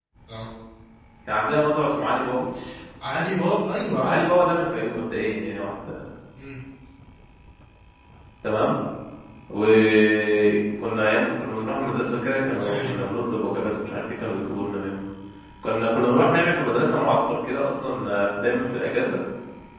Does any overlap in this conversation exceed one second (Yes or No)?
No